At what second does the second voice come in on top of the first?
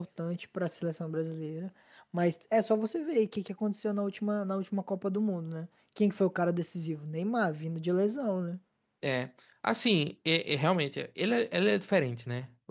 none

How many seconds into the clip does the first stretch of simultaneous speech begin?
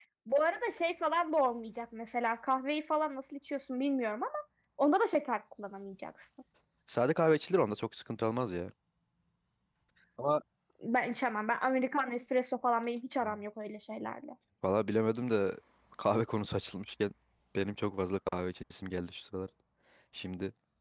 none

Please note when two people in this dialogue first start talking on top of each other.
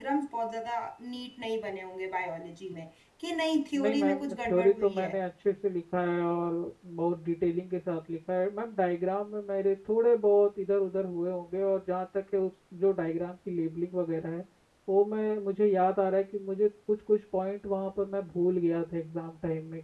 3.7 s

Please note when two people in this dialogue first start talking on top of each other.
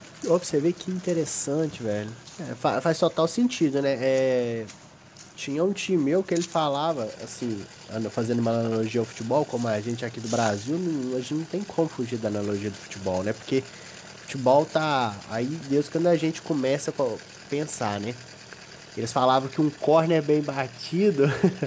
none

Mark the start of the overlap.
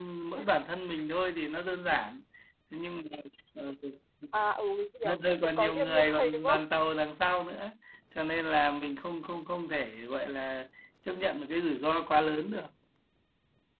5.0 s

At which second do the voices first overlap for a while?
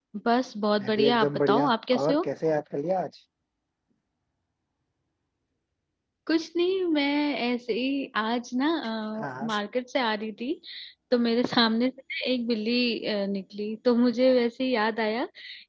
0.8 s

